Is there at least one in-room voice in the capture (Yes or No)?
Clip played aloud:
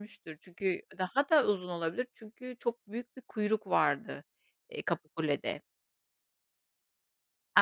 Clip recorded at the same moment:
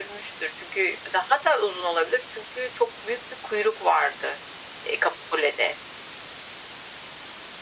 No